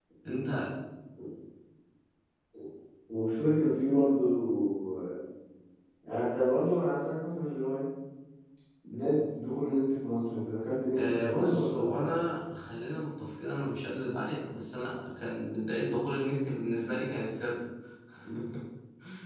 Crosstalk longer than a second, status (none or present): present